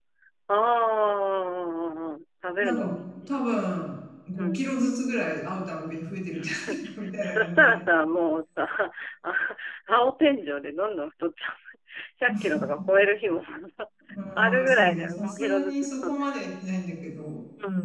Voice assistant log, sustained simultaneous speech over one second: present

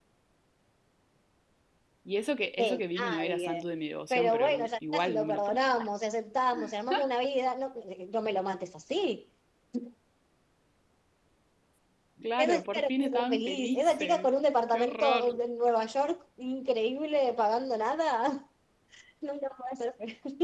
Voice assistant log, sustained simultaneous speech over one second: present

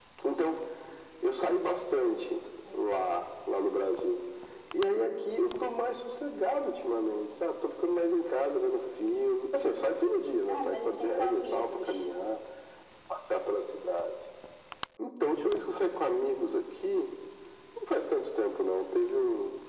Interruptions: present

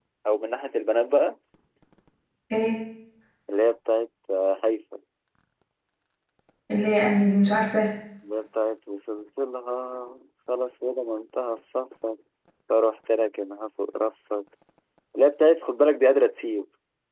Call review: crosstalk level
none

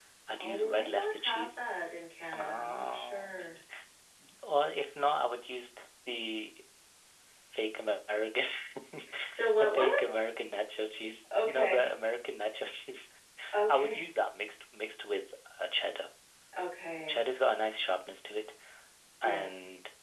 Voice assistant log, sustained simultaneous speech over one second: present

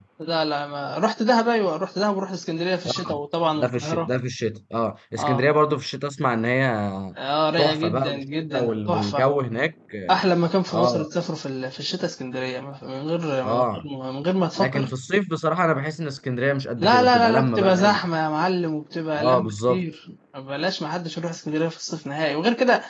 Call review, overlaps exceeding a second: present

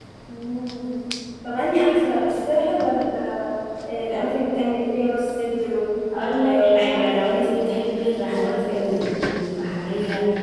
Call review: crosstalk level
present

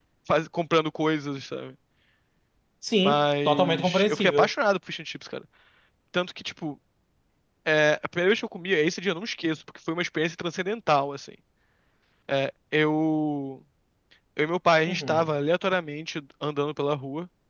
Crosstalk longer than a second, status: present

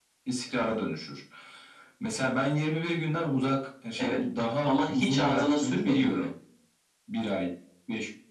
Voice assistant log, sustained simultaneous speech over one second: present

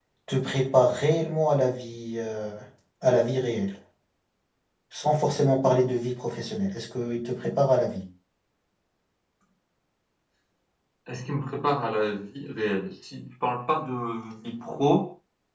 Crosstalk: none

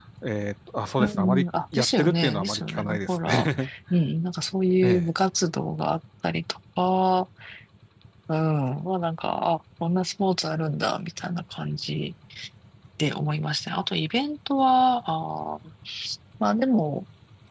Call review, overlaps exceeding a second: present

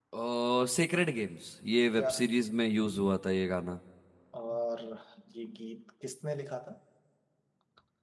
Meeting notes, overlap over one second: none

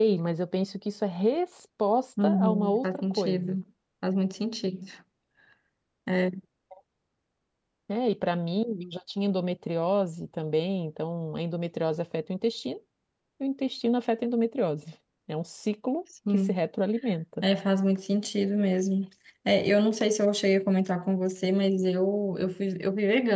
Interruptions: present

